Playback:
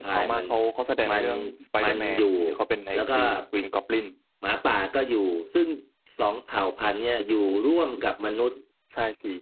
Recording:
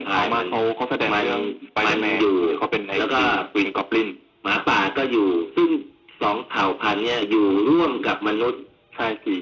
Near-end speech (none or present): none